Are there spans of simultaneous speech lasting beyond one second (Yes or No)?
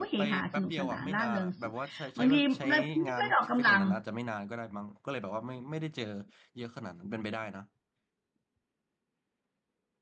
Yes